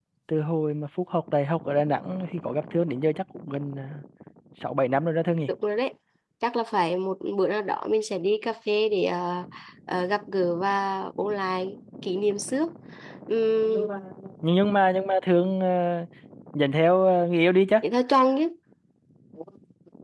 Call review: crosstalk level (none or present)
none